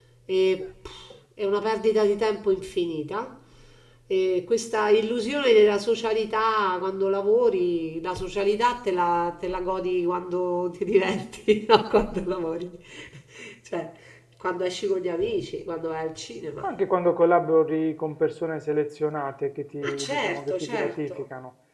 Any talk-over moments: Yes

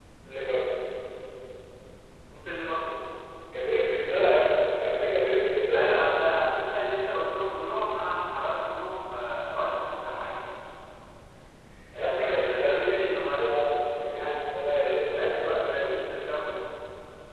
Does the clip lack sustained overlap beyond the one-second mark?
No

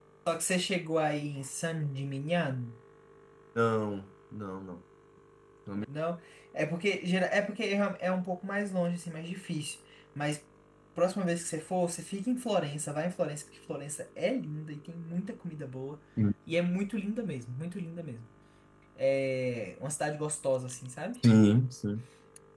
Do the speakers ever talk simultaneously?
No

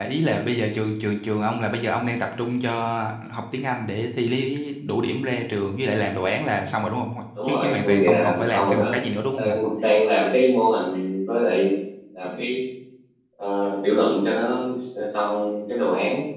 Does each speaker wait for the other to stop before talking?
No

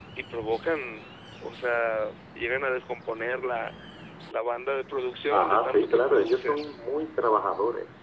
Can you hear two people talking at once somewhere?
Yes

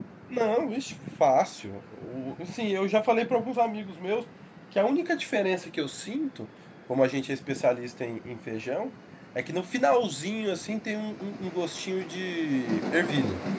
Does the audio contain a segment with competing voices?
No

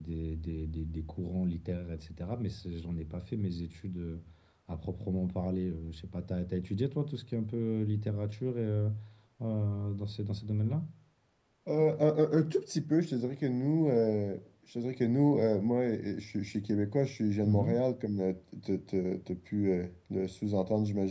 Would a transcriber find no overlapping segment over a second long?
Yes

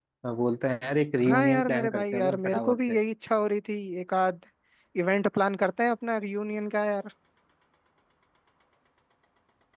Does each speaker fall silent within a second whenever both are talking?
No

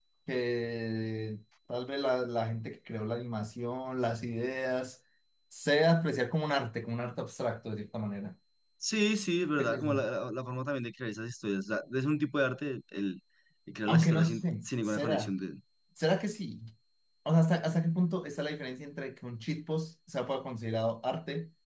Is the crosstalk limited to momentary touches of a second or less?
No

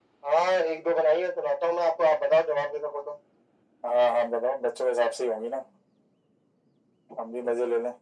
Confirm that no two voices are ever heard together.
Yes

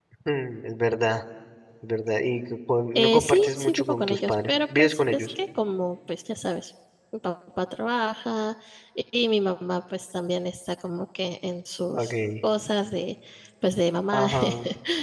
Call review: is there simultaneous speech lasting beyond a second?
Yes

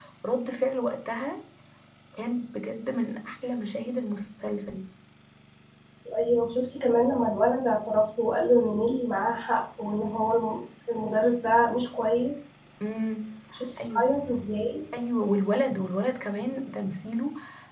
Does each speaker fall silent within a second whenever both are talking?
Yes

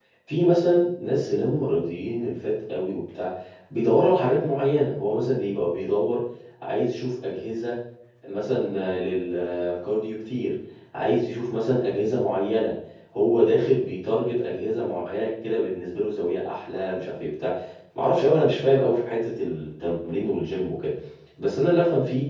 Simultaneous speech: No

